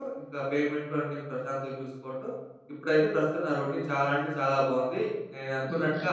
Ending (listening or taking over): listening